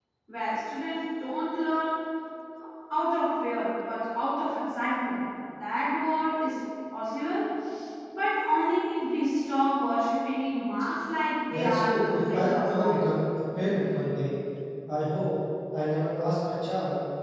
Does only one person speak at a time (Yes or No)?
No